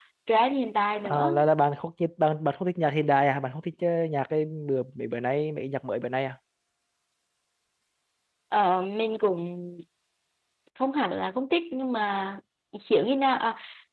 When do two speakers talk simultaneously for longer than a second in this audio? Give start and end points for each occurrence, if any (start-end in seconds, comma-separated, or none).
none